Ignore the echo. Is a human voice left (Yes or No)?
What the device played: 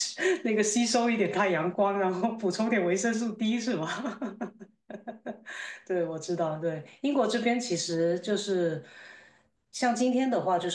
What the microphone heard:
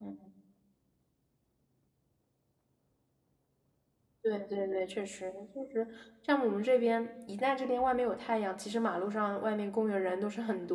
Yes